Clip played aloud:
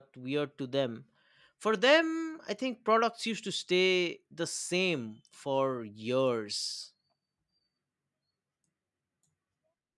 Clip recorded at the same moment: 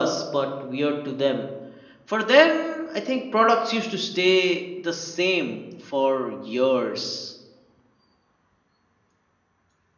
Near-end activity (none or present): none